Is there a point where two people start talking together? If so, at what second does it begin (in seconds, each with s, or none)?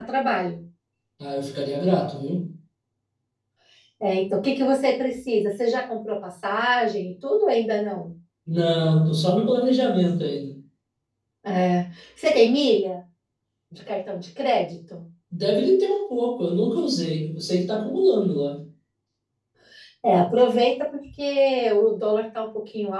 none